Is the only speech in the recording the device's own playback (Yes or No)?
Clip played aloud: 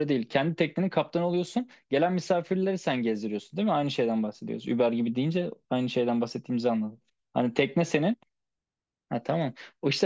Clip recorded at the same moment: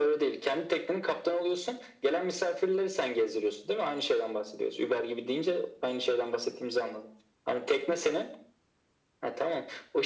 Yes